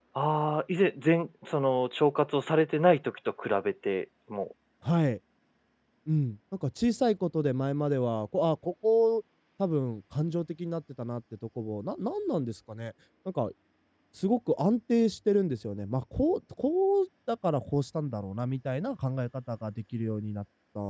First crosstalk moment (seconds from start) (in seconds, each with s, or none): none